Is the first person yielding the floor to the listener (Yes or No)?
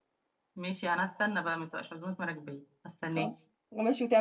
Yes